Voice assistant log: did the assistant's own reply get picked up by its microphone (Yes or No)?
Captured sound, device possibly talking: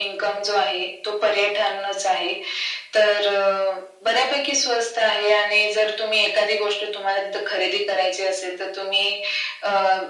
Yes